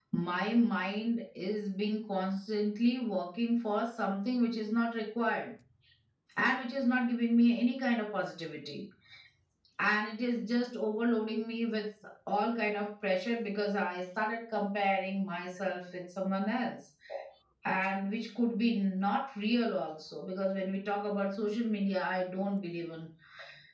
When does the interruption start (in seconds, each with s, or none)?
none